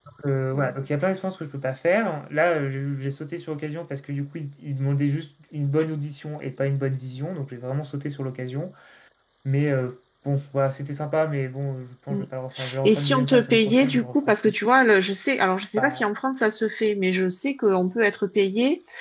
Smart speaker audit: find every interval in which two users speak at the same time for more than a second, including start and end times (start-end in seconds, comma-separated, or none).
12.8-14.5